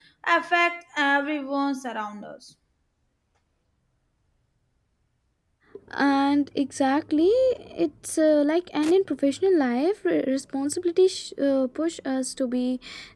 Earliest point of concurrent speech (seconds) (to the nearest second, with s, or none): none